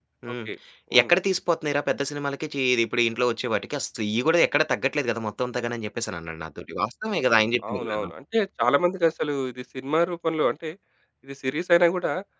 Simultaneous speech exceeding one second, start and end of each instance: none

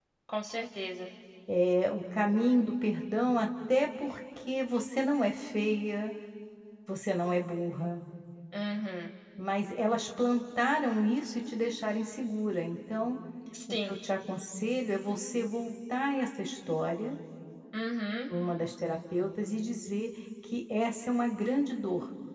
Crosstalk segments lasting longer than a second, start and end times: none

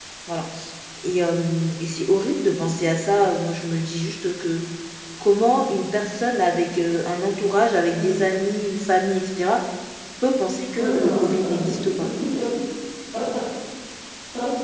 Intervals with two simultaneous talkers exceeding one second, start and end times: 10.8-12.1

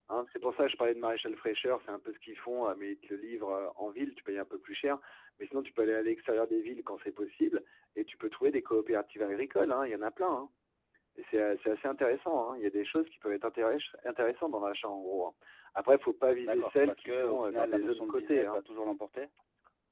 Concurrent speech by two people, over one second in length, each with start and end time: 16.4-18.6

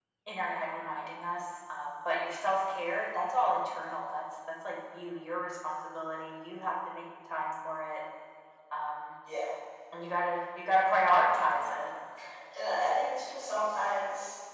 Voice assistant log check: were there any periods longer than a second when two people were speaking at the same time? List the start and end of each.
none

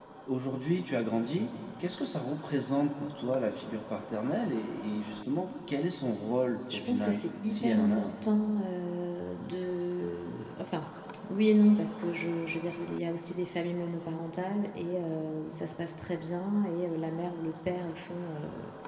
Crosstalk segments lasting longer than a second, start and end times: 6.7-8.1

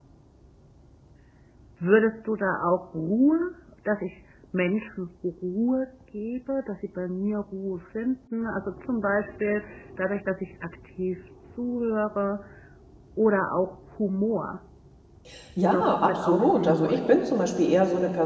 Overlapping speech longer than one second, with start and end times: 15.7-17.1

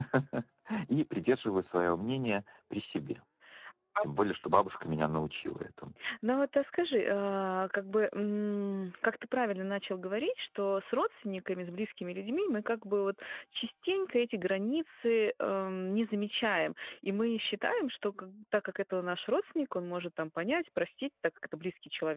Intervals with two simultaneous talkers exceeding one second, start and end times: none

